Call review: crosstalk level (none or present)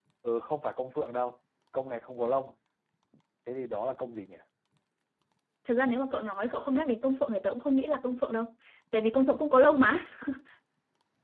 none